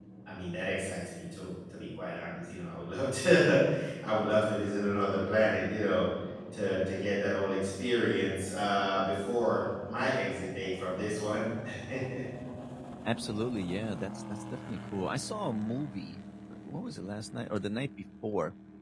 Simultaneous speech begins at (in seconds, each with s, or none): none